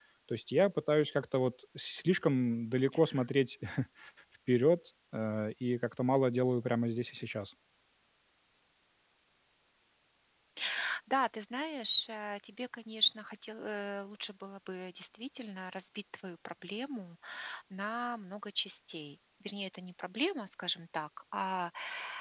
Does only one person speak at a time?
Yes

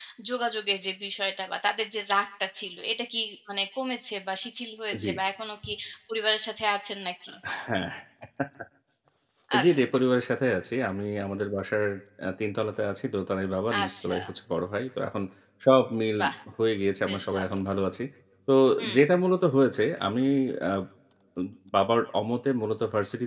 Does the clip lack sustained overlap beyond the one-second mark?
Yes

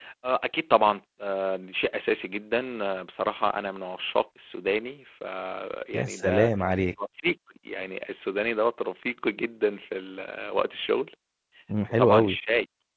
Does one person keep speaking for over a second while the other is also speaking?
No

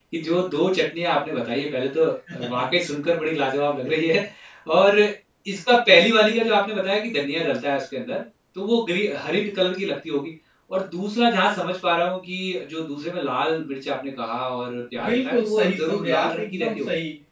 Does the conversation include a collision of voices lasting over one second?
Yes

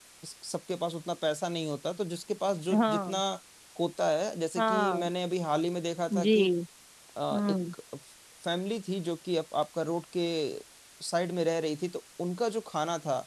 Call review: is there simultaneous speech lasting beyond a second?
No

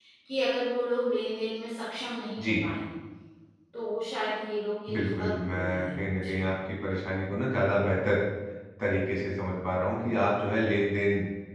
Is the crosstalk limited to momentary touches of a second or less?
No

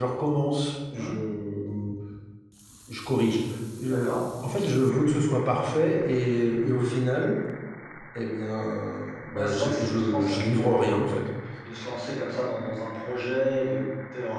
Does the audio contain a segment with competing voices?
Yes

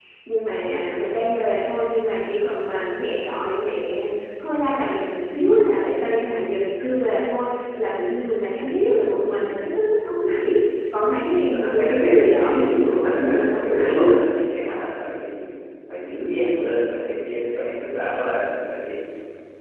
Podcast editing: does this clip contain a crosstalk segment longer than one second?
Yes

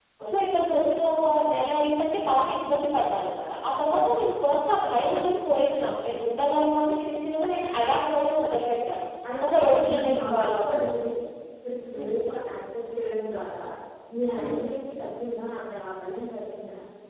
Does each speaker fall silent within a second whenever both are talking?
No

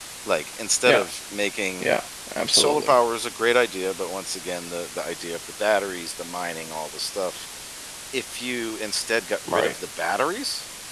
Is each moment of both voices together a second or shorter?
Yes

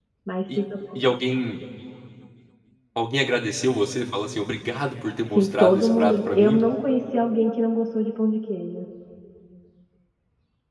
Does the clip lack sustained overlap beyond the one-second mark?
No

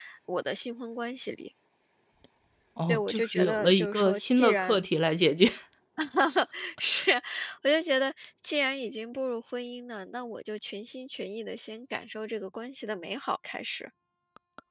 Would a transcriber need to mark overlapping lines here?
Yes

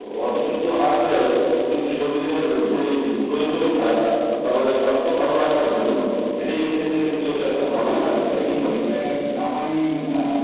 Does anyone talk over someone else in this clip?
Yes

